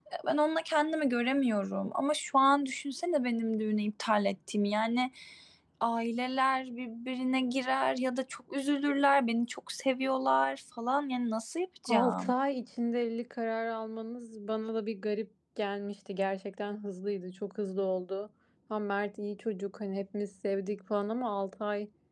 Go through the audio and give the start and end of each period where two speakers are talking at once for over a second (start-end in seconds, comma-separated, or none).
none